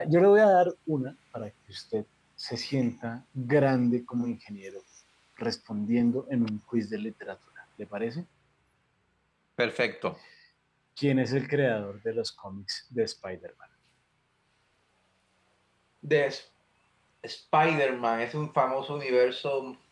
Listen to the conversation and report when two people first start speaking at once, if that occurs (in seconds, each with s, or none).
none